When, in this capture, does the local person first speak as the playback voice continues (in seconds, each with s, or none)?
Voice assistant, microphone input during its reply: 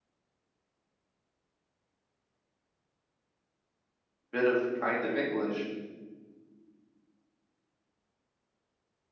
4.3 s